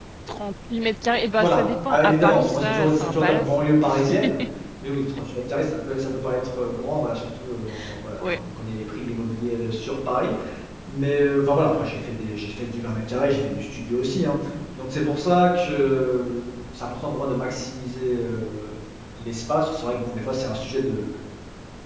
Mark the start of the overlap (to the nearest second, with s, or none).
1 s